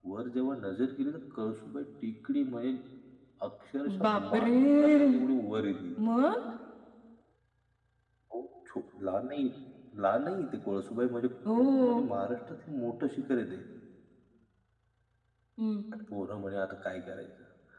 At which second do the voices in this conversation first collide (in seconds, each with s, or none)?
4.0 s